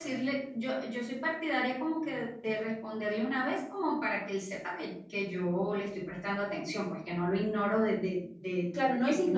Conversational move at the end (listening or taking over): taking over